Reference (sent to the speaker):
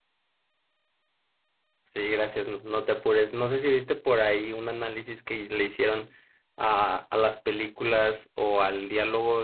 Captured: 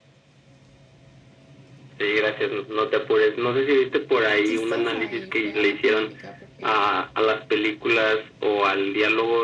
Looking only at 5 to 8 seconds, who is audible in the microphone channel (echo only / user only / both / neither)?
both